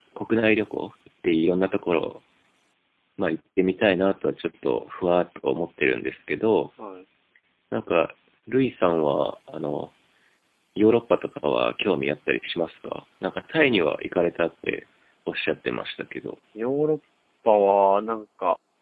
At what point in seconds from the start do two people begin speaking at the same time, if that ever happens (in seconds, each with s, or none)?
none